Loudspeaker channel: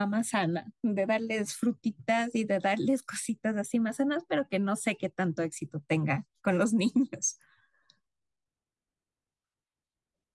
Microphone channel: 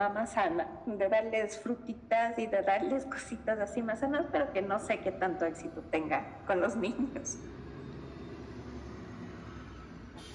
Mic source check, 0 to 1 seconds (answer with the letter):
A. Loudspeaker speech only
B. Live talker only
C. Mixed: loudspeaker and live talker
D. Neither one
A